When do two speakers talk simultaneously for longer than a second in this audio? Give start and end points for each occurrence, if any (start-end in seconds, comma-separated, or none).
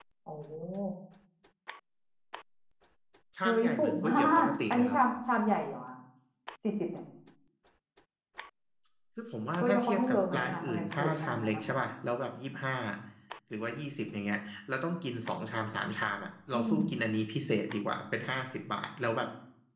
3.4-5.0, 9.6-11.6